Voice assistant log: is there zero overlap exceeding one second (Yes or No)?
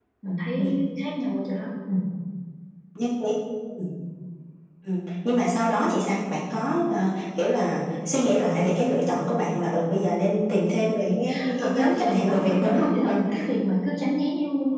No